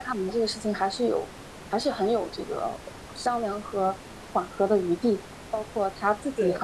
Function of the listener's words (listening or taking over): listening